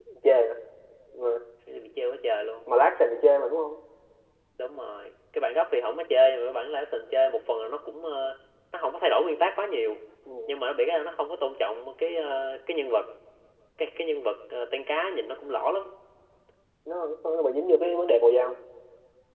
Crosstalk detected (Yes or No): No